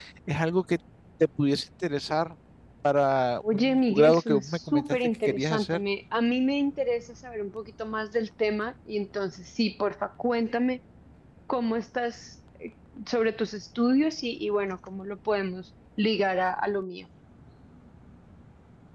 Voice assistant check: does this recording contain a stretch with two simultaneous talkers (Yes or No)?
Yes